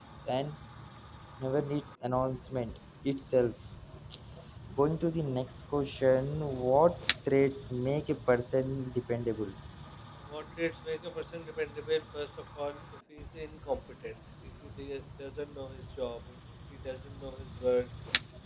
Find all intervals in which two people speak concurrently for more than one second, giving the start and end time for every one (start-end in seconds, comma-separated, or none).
none